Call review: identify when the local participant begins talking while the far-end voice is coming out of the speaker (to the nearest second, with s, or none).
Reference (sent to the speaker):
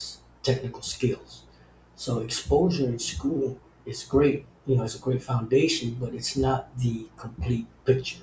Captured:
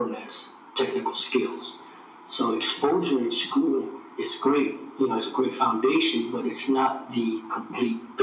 none